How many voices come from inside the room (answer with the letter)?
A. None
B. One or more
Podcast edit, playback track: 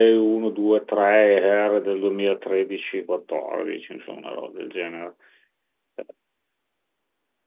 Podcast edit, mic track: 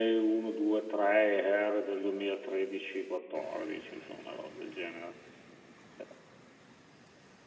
A